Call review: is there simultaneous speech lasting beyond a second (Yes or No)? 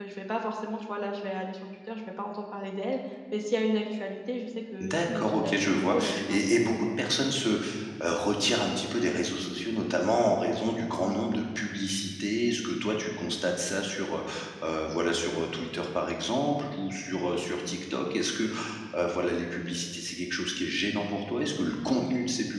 Yes